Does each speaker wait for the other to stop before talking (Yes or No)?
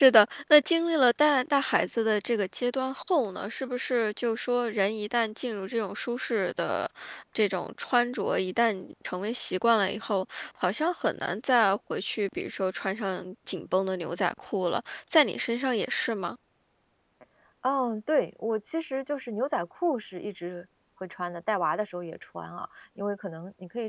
Yes